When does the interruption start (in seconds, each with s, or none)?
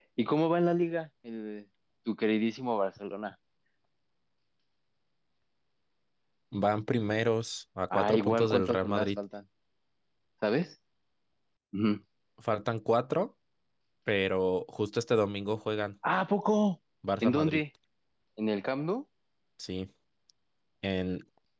7.9 s